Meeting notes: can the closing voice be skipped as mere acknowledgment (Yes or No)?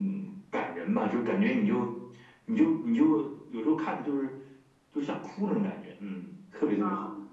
No